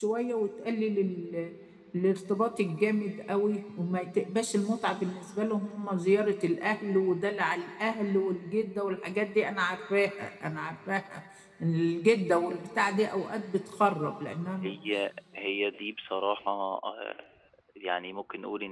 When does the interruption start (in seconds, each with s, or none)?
none